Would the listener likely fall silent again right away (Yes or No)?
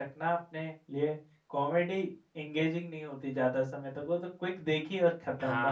No